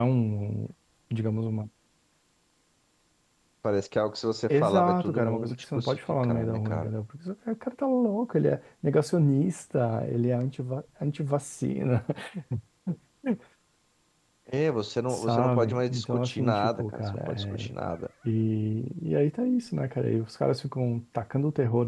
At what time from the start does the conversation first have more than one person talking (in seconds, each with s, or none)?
4.5 s